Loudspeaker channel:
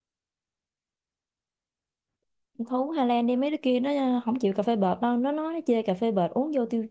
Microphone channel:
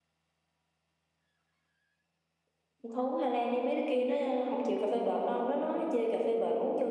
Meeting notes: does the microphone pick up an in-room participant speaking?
No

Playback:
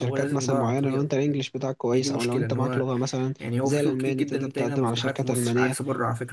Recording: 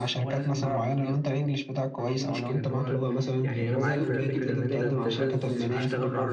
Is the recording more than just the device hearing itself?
Yes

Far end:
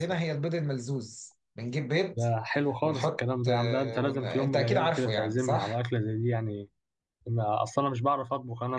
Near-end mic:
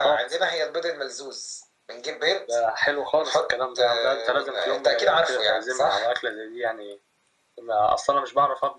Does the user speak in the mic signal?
No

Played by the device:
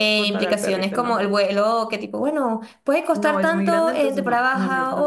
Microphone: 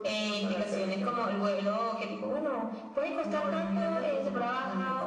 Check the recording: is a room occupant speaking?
No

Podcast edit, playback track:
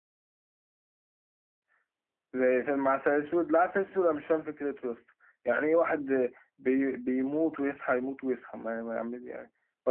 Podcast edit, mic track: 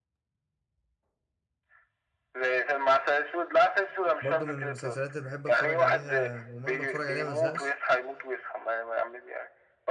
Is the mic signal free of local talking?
No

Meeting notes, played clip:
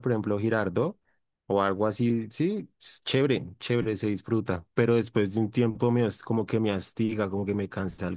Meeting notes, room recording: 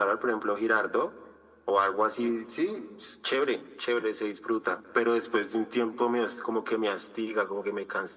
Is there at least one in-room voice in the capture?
No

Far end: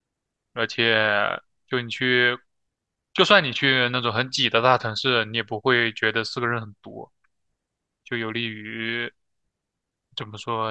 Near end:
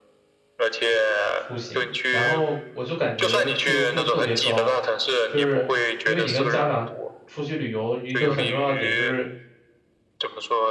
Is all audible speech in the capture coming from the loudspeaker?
No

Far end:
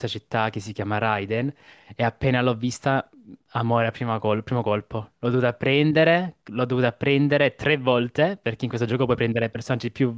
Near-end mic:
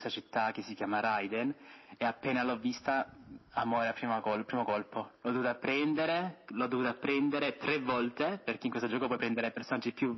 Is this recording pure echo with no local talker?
Yes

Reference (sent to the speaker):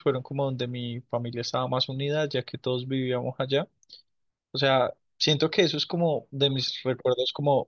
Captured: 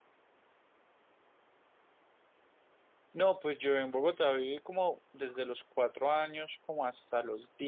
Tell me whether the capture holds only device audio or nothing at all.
No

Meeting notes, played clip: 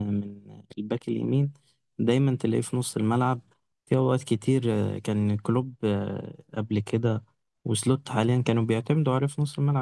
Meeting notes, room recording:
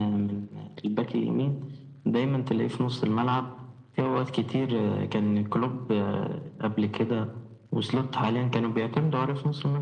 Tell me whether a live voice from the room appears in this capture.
No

